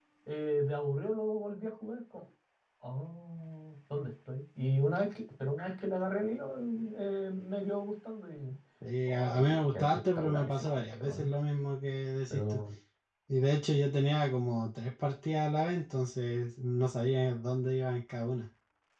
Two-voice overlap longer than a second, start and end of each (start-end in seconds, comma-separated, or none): 9.1-11.3